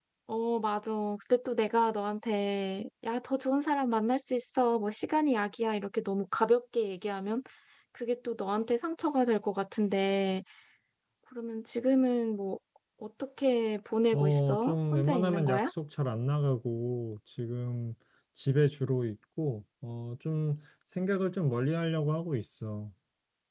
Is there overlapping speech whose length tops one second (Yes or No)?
Yes